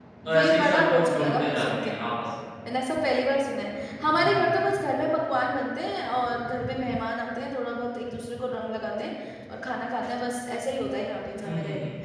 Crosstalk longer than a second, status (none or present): present